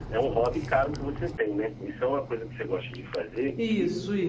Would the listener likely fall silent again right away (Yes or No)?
No